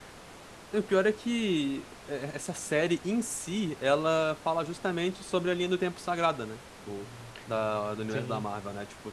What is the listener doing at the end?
listening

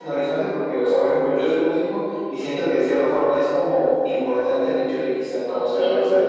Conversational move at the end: listening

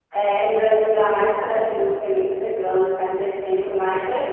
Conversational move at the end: taking over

